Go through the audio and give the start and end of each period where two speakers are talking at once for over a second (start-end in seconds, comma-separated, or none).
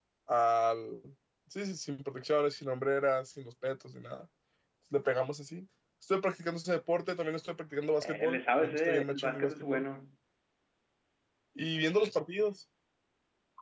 8.0-9.8